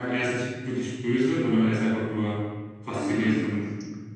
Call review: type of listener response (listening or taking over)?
taking over